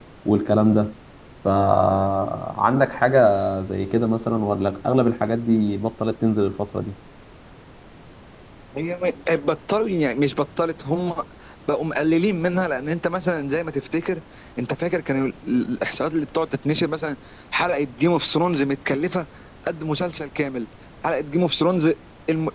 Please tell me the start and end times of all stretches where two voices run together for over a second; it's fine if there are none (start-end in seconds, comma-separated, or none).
none